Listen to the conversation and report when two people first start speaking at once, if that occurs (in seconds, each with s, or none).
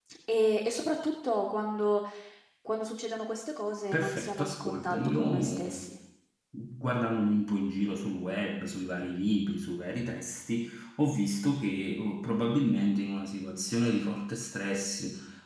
3.9 s